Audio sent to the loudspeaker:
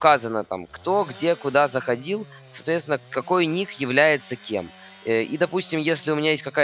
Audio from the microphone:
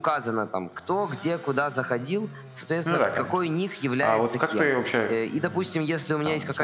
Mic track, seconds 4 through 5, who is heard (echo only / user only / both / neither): both